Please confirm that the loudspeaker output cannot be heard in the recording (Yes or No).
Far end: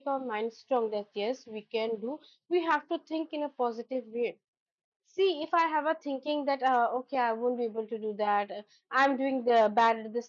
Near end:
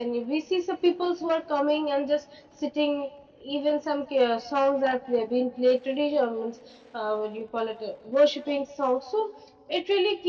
Yes